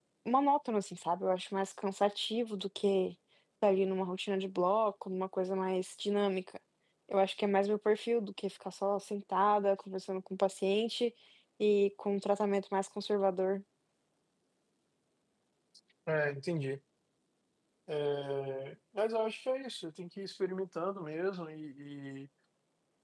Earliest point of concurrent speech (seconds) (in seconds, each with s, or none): none